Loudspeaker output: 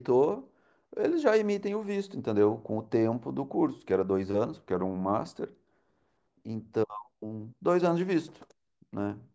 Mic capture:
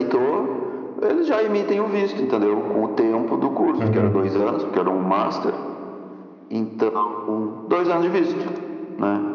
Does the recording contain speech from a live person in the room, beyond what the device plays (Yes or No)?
Yes